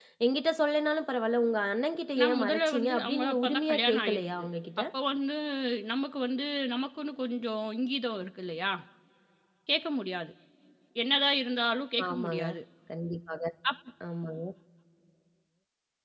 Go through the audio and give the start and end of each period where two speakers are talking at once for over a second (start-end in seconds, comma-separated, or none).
2.2-4.4